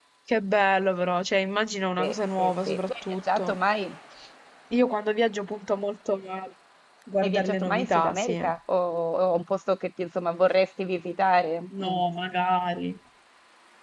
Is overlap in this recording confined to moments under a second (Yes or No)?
No